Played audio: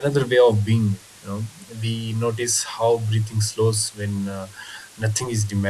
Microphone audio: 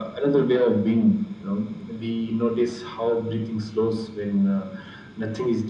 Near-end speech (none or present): none